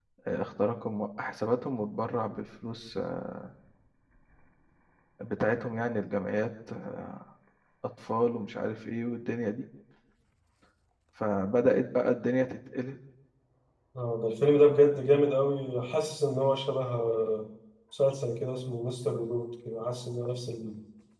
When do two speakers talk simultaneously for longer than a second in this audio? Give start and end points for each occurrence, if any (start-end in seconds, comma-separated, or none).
none